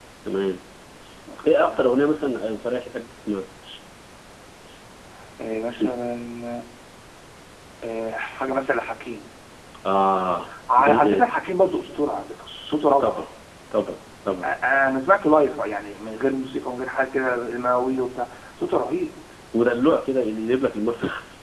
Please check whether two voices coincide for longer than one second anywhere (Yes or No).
No